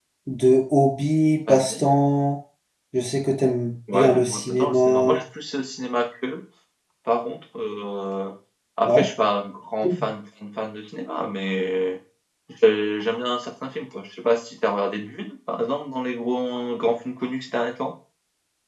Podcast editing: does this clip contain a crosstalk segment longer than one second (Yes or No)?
Yes